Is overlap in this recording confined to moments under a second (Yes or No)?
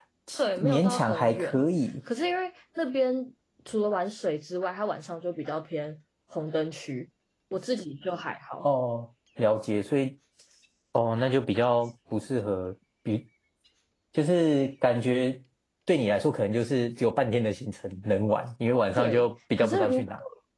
No